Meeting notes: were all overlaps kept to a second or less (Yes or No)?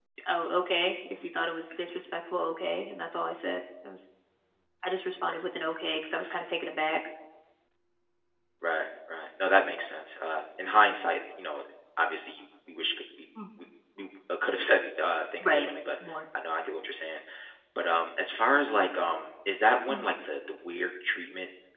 Yes